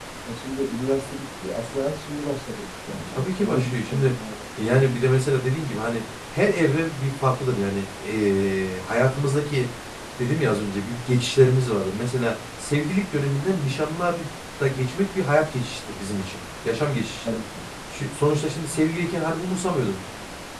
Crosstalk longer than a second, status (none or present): present